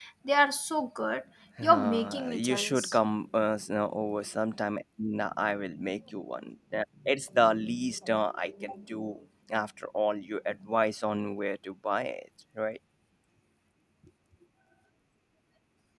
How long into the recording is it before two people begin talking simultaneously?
1.6 s

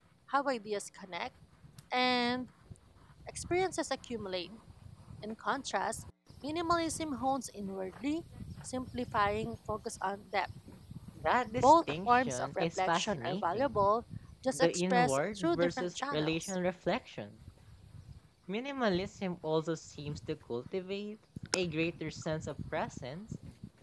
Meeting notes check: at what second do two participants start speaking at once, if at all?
11.6 s

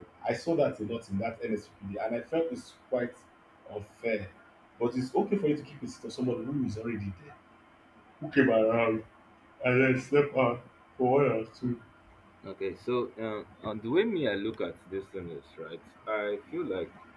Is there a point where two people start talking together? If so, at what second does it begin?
none

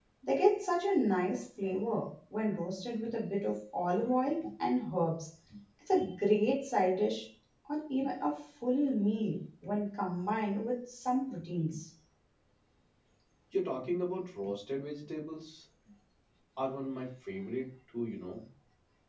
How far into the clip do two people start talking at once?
none

